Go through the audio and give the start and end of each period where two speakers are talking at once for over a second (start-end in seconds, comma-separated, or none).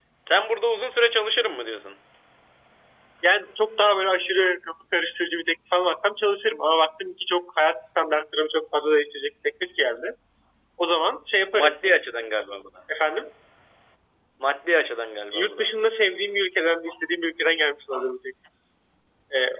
none